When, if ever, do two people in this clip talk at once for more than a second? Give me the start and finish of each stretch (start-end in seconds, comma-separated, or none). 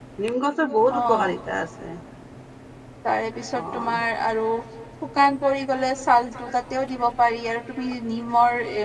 none